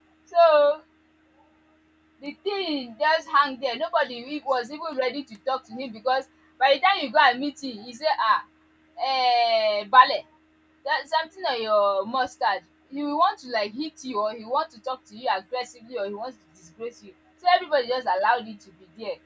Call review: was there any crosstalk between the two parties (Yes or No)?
No